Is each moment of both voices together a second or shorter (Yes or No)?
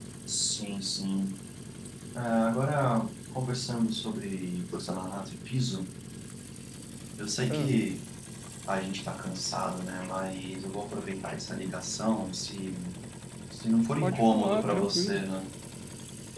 No